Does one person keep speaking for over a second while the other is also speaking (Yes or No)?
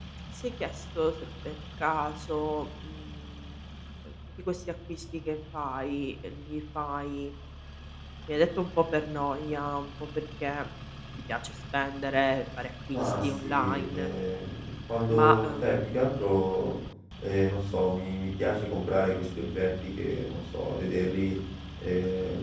Yes